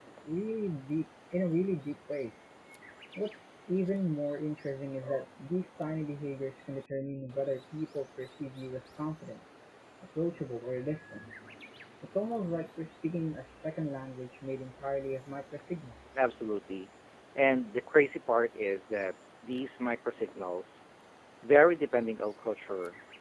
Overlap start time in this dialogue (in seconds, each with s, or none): none